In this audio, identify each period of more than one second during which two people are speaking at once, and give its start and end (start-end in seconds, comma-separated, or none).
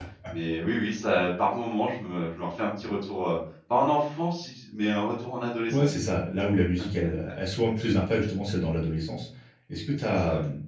none